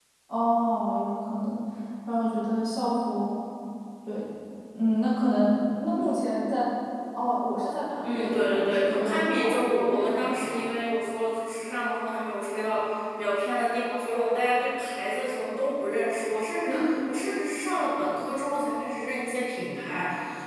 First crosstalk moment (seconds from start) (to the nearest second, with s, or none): 8 s